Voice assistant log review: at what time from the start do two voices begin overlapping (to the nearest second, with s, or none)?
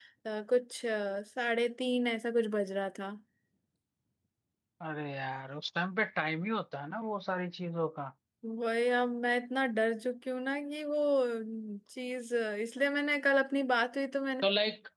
none